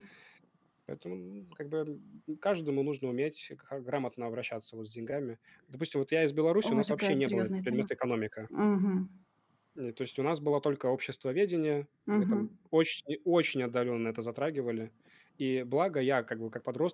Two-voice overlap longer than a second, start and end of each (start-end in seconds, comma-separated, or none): 6.6-7.8